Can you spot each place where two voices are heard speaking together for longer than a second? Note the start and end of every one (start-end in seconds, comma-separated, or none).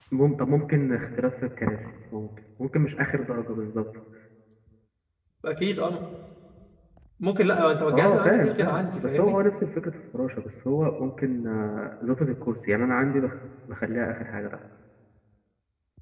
7.9-9.3